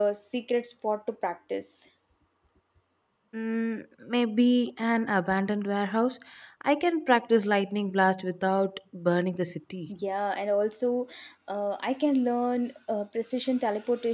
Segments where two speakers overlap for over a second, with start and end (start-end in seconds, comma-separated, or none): none